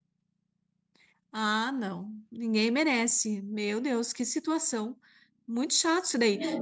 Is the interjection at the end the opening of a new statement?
No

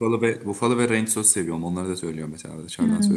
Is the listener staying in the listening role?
No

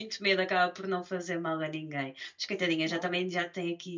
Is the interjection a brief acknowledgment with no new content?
Yes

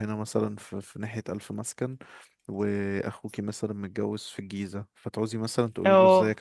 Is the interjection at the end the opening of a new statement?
No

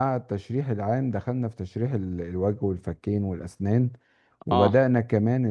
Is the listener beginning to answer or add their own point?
No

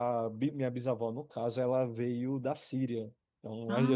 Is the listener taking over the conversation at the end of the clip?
No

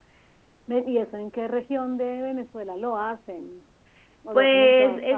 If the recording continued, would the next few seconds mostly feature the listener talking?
Yes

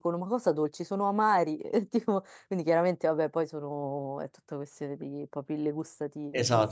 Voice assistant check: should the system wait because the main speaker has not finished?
No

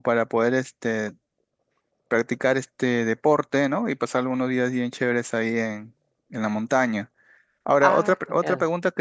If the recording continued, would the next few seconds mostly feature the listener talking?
No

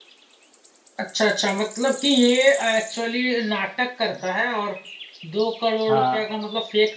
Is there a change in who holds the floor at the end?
No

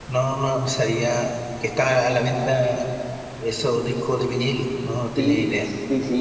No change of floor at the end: No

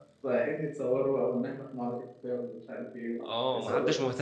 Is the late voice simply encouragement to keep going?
No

